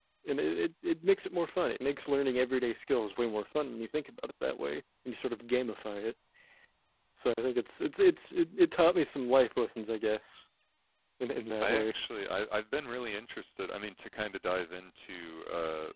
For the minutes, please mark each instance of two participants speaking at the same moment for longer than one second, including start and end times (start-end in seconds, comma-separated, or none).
none